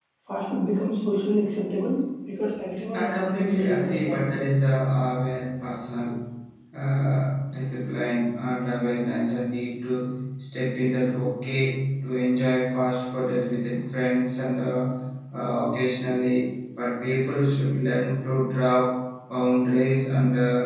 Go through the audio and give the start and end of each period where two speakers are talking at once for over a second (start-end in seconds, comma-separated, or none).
2.9-4.2